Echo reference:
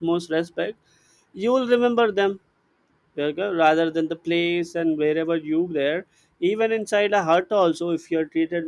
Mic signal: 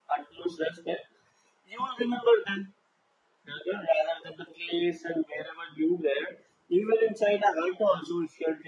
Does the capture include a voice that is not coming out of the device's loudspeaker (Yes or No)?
No